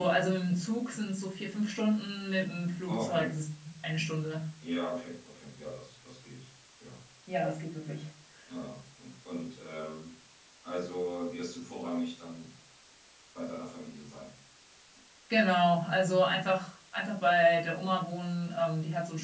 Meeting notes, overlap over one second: none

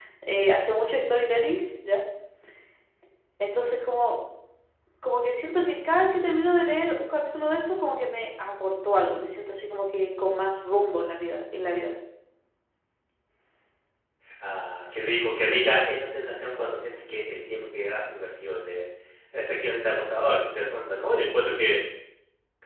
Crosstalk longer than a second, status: none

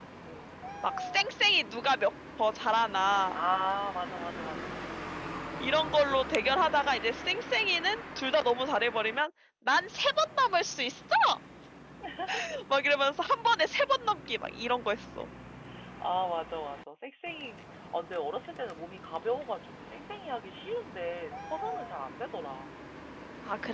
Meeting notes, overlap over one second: none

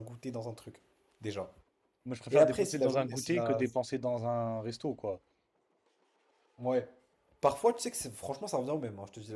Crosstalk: present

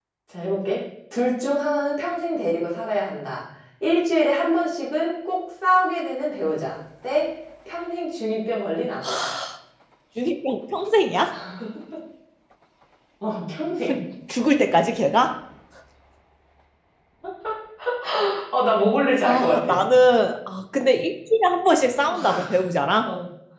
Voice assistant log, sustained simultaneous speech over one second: none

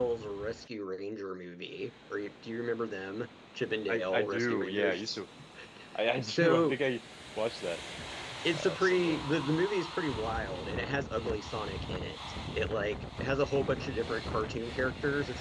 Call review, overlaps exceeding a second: present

